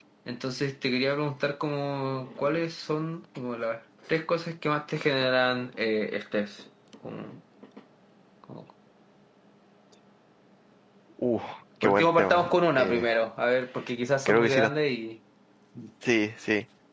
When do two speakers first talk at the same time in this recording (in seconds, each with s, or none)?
11.8 s